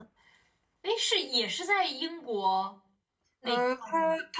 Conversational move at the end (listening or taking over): taking over